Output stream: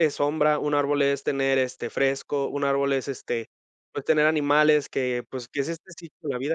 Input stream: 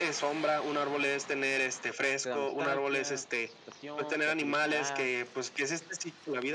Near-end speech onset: 2.2 s

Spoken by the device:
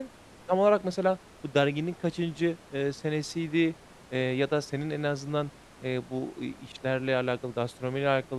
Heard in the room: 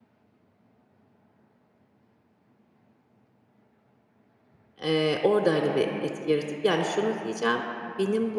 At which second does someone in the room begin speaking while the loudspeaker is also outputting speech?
4.8 s

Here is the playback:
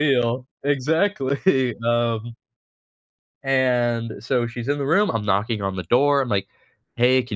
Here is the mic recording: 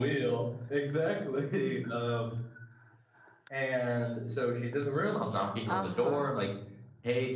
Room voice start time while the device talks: 5.7 s

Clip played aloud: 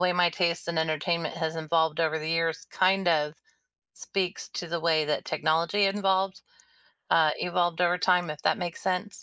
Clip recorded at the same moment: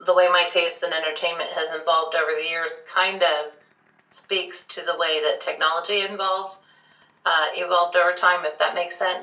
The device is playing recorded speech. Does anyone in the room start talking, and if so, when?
none

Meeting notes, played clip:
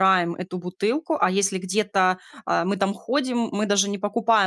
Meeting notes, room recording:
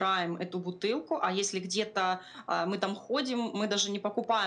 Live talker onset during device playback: none

